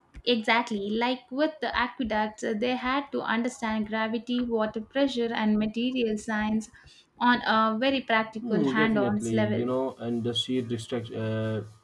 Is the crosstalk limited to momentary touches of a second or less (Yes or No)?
No